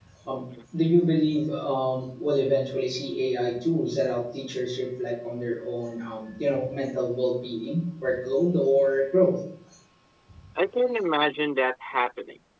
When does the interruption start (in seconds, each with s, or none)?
none